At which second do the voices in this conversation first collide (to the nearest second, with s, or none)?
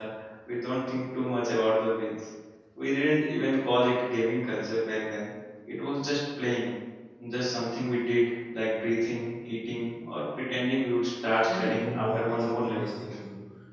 11 s